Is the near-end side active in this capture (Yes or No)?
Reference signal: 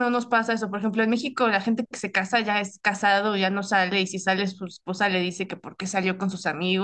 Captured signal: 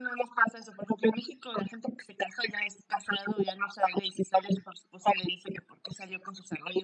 No